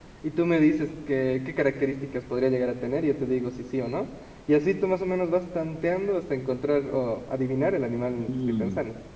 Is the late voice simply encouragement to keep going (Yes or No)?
No